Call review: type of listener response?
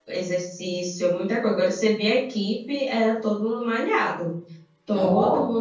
listening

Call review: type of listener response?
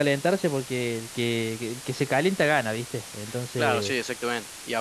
taking over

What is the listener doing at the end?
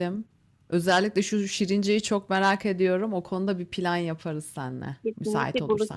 taking over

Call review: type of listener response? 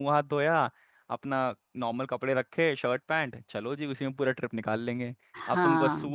listening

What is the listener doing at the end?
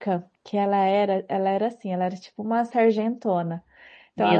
listening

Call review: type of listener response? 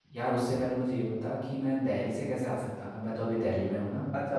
taking over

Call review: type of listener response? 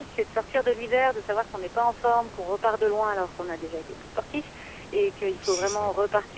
listening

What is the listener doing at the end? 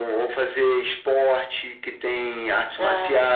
listening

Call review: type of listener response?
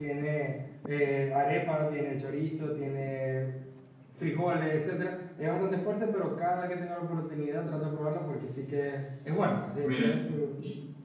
taking over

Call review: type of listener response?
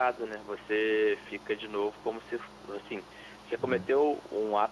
listening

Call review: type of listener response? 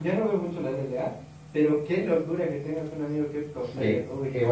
taking over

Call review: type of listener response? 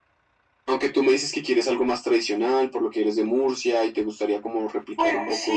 taking over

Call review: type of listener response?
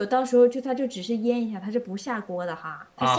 taking over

